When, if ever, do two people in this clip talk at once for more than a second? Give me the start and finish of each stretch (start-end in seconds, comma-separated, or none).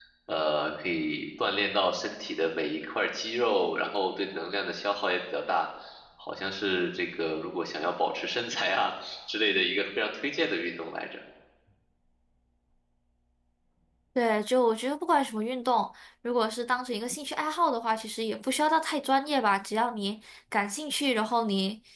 none